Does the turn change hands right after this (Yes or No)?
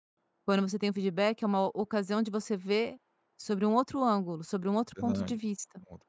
Yes